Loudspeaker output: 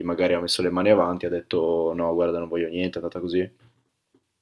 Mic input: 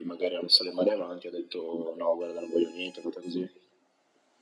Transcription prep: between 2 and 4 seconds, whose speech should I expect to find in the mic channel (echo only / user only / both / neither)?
echo only